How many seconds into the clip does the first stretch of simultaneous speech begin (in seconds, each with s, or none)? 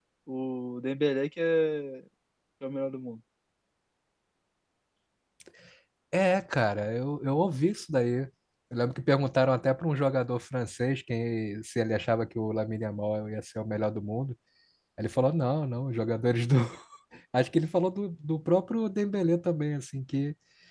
none